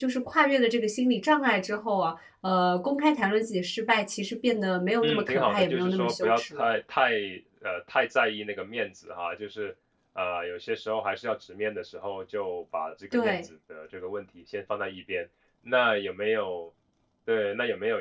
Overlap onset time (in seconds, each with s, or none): 5.0 s